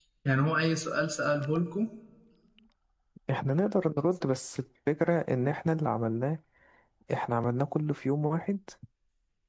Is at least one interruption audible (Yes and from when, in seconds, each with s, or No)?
No